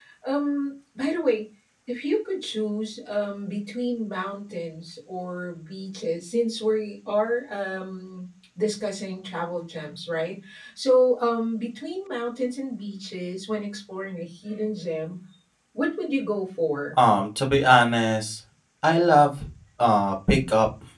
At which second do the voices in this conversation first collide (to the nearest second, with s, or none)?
none